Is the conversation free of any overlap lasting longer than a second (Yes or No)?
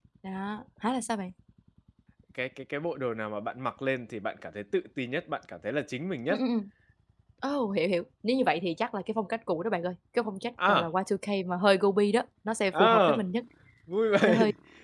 Yes